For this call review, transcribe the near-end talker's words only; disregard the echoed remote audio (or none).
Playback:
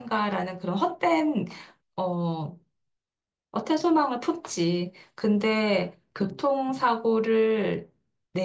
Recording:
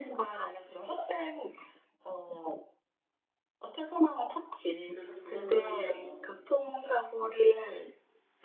그래서 그걸 보면서,